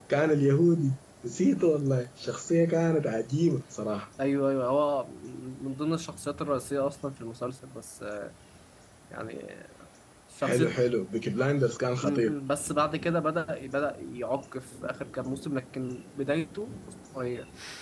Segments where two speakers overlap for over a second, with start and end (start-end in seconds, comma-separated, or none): none